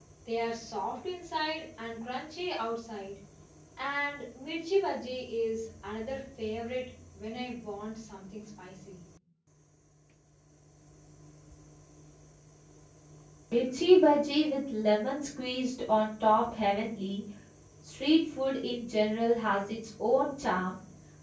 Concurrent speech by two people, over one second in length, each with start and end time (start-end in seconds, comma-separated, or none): none